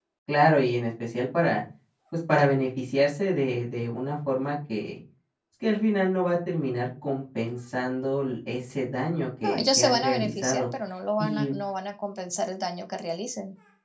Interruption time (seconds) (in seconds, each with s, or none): 9.4 s